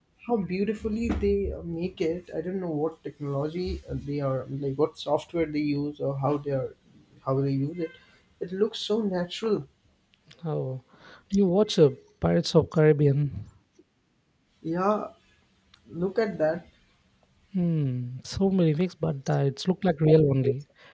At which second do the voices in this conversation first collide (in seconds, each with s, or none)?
none